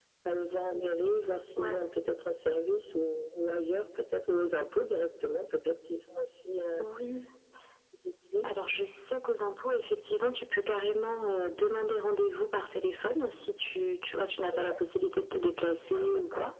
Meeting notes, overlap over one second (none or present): none